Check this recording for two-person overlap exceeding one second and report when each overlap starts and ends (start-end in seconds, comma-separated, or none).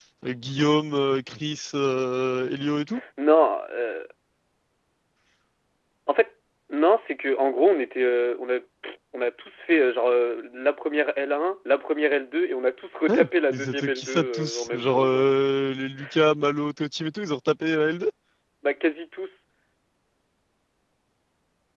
13.1-15.2